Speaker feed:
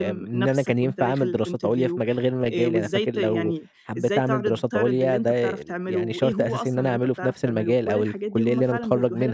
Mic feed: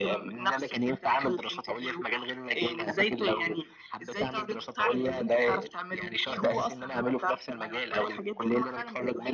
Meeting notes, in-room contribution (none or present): none